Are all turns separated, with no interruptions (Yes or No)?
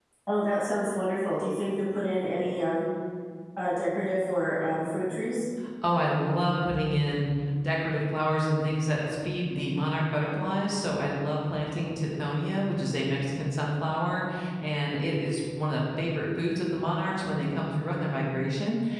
Yes